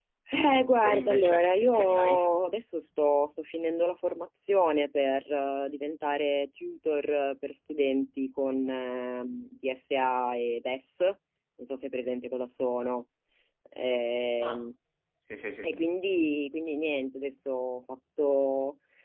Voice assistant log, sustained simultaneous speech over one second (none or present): present